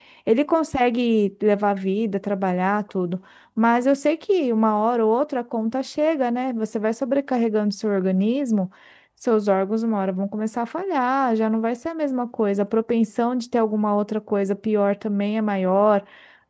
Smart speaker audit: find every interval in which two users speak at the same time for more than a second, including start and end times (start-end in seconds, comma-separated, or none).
none